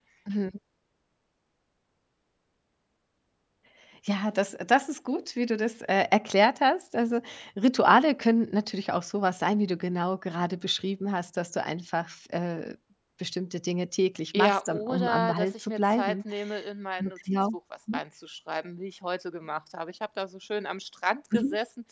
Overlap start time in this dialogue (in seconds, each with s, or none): 14.3 s